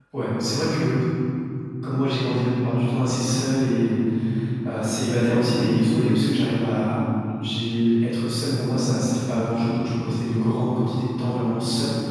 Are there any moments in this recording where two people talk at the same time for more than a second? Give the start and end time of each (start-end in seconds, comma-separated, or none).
none